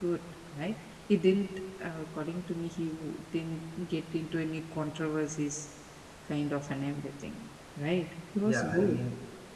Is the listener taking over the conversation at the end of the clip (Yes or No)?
Yes